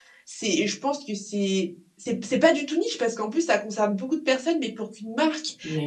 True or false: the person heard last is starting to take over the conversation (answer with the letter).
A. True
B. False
B